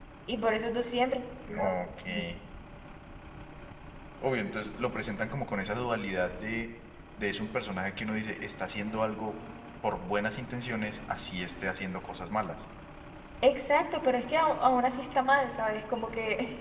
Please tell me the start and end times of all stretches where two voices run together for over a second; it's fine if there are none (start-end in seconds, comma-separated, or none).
none